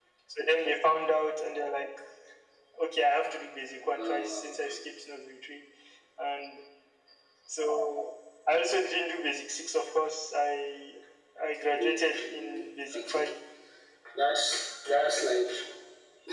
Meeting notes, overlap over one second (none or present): present